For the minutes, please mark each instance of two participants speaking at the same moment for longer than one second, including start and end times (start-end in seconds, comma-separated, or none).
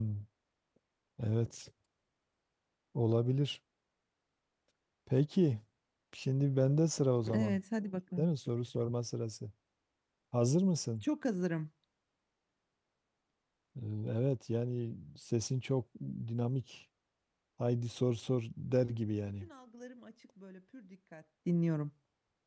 none